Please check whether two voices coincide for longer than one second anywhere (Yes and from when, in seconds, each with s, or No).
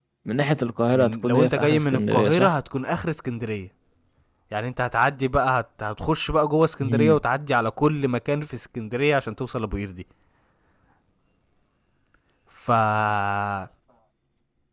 Yes, from 0.9 s